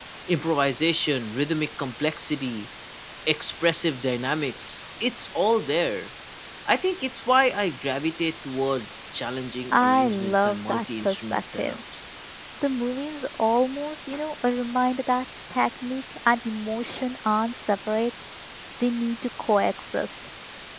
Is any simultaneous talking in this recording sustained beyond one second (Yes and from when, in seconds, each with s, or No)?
Yes, from 9.7 s